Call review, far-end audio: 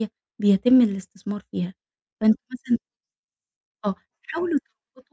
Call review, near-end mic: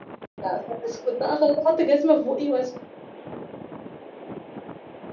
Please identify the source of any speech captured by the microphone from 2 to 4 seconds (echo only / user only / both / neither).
user only